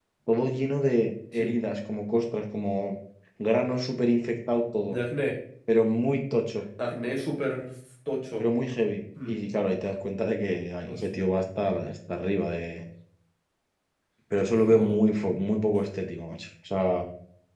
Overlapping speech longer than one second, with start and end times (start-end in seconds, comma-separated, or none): none